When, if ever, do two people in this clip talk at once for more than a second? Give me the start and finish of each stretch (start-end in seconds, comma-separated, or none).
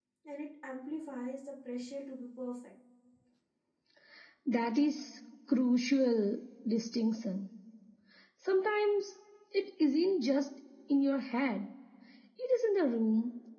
none